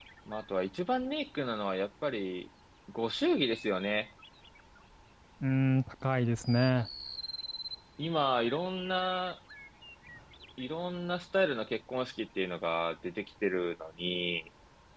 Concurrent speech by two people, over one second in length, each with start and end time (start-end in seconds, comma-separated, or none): none